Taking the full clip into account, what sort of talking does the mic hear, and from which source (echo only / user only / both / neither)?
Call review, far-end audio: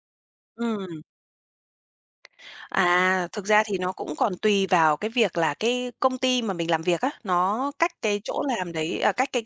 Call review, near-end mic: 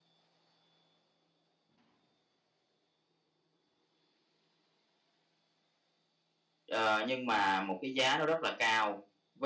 user only